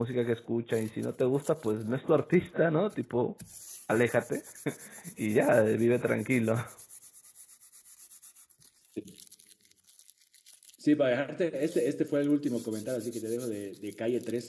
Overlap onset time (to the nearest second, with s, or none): none